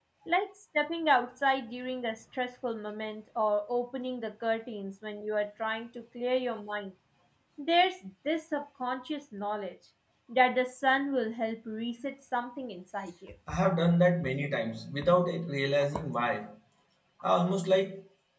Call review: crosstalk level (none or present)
none